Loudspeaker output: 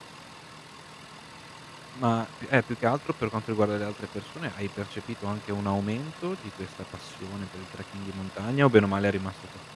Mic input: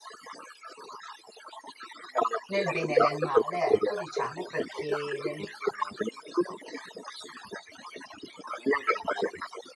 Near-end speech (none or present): present